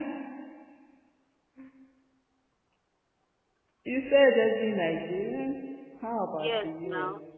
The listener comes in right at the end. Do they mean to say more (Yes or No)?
Yes